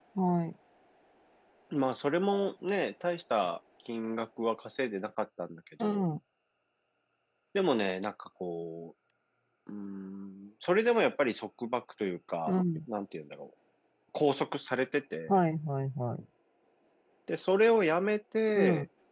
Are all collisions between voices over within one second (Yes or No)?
Yes